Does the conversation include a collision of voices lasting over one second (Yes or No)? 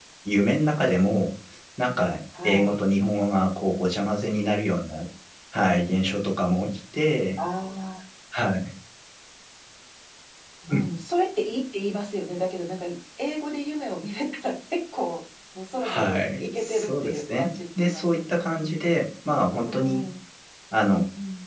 Yes